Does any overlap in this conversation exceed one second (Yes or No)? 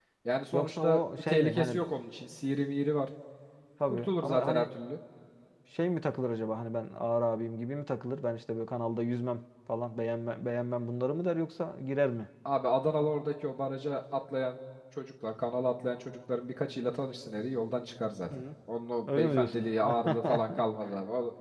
Yes